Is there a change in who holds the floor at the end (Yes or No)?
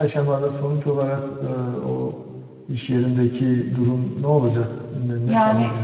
Yes